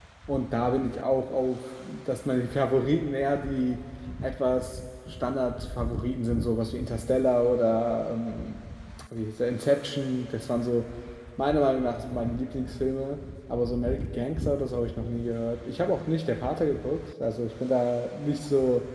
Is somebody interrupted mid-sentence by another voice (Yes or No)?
No